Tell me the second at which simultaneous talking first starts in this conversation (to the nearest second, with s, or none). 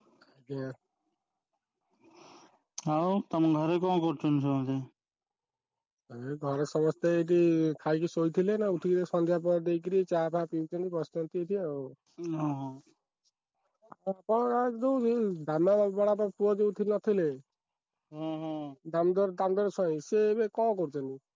none